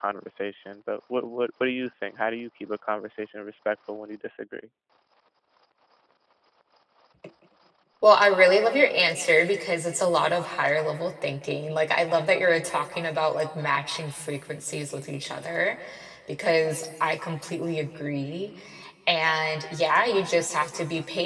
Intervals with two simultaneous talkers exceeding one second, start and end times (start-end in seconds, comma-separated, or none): none